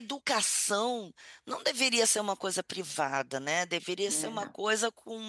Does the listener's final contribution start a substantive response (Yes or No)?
No